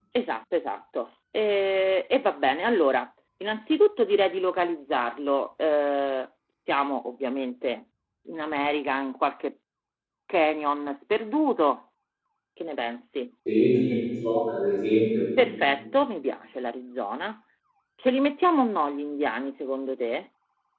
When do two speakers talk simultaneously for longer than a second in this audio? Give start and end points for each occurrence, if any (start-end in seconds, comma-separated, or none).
none